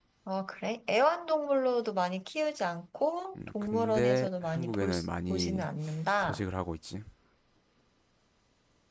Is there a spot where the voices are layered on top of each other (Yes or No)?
Yes